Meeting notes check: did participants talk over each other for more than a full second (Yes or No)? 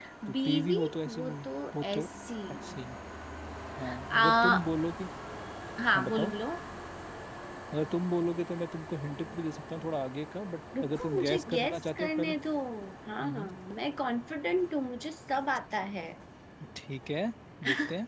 Yes